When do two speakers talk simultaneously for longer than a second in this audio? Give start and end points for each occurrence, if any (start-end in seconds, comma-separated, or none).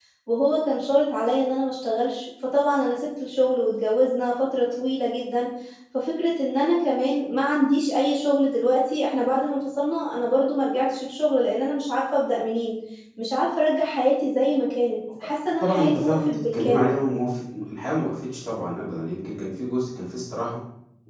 15.6-16.9